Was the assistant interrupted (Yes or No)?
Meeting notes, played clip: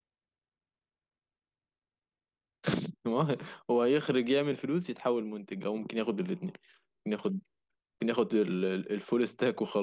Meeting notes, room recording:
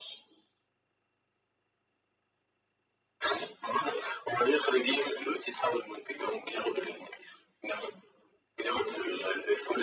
No